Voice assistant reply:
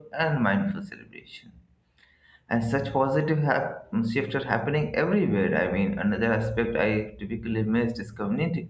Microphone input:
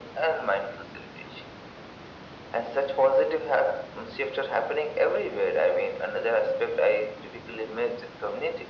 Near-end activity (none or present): none